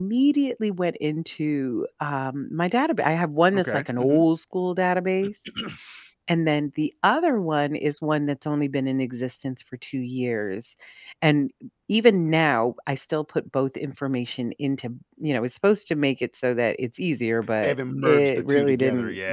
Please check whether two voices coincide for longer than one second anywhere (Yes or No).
Yes